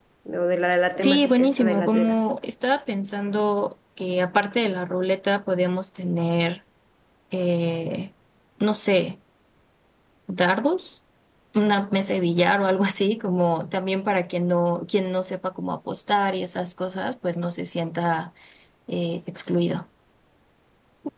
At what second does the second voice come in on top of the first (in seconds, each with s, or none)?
0.9 s